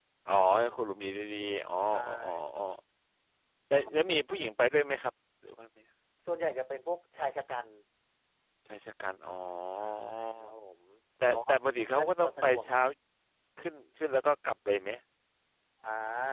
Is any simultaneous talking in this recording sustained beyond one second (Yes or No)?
Yes